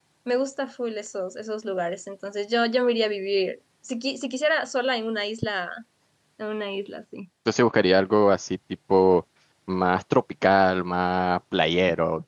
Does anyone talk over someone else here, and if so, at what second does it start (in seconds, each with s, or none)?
none